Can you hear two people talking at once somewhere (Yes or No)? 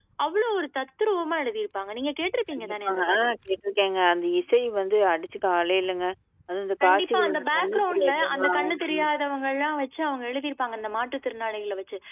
Yes